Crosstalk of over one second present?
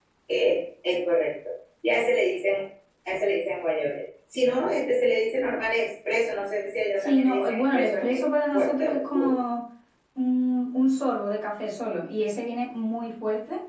Yes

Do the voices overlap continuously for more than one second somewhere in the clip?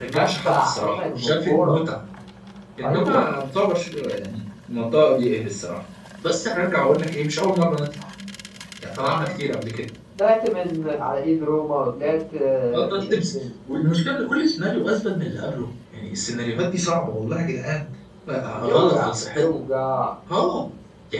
Yes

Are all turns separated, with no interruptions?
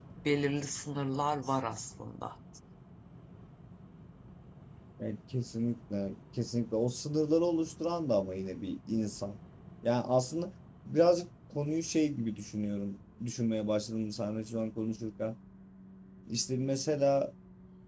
Yes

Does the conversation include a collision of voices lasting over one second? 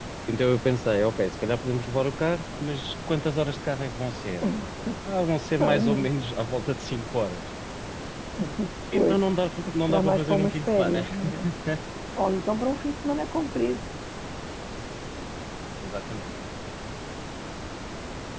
Yes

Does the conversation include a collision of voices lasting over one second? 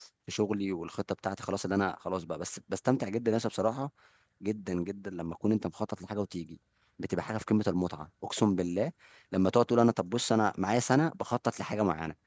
No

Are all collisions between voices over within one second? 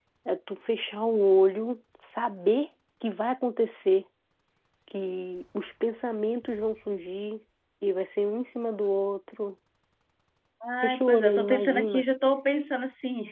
No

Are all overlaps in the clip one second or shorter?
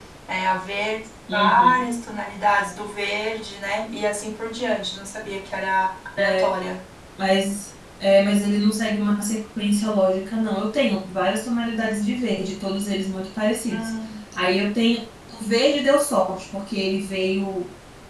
Yes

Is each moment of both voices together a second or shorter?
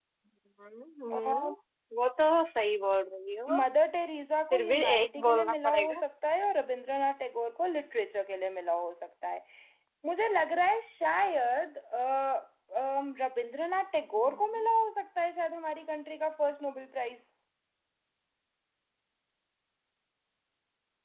No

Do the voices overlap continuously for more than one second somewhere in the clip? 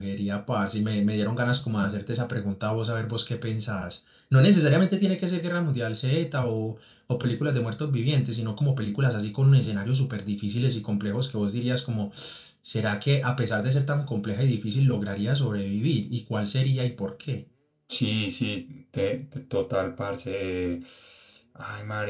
No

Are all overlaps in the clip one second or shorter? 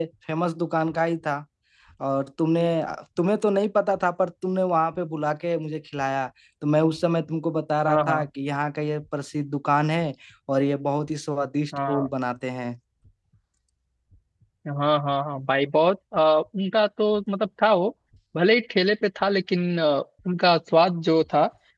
Yes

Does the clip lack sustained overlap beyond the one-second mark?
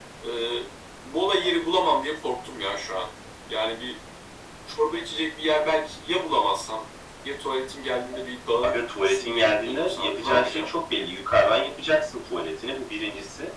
No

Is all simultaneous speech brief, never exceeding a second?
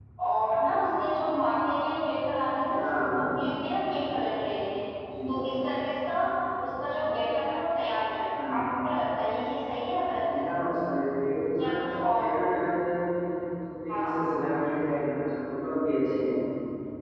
Yes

